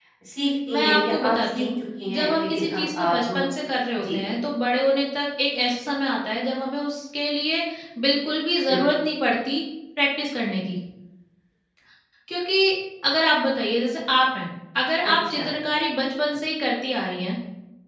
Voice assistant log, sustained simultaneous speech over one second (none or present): present